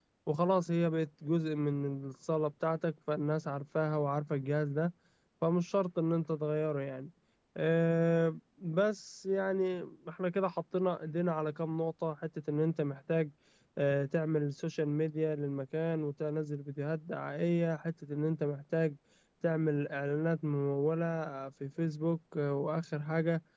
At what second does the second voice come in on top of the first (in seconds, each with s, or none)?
none